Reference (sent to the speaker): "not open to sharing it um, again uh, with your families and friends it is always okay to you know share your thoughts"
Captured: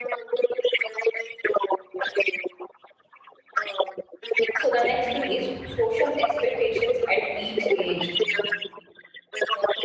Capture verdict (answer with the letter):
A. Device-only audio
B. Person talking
B